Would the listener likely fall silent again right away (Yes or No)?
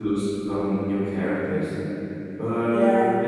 No